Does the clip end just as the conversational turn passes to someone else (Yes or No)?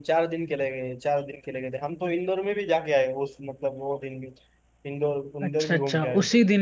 Yes